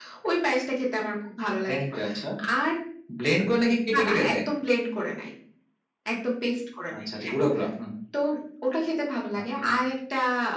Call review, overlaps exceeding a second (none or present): none